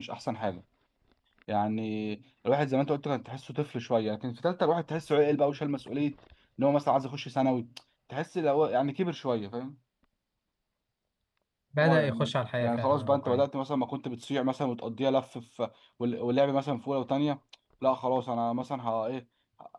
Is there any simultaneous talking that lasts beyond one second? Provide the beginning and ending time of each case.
11.8-13.5

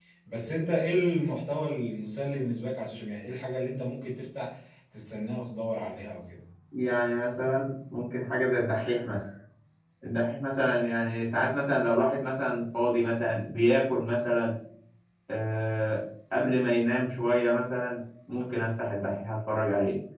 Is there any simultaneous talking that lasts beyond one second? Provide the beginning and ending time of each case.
none

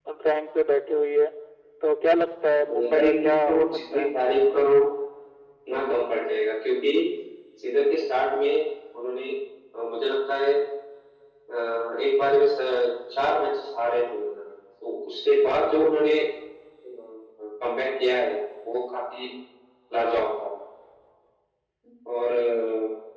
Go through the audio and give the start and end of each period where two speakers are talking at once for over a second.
2.6-4.0

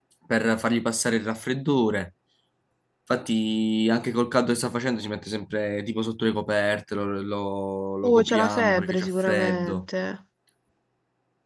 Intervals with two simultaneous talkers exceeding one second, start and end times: 8.0-9.8

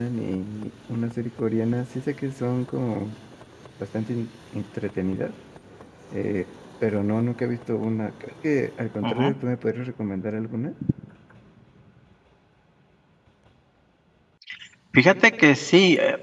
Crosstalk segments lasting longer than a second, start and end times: none

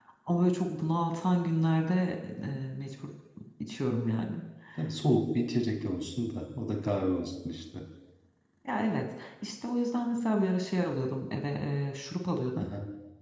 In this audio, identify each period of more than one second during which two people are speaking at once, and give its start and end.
none

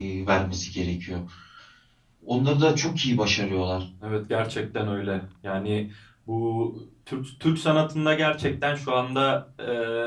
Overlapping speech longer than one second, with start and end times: none

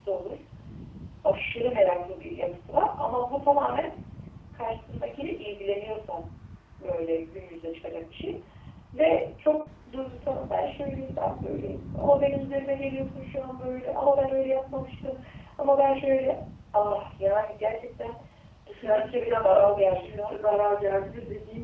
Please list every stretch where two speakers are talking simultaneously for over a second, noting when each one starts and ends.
18.8-20.4

